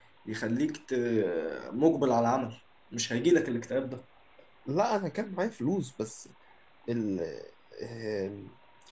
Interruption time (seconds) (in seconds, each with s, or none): none